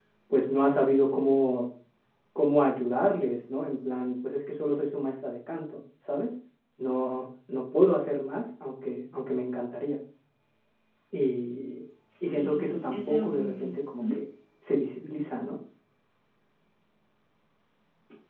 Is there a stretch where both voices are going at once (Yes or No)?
Yes